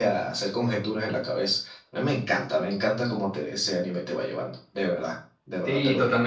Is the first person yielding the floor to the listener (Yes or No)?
Yes